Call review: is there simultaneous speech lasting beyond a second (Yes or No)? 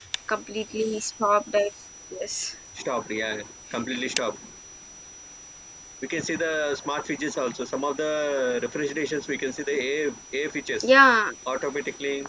No